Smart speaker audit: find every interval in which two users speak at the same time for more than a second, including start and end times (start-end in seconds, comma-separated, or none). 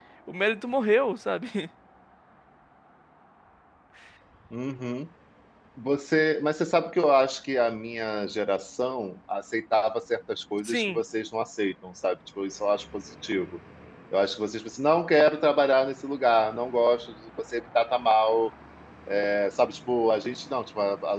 none